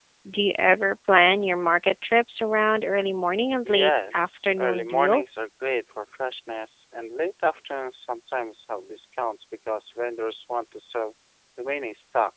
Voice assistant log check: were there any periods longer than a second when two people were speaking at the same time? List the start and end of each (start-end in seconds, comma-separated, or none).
3.6-5.3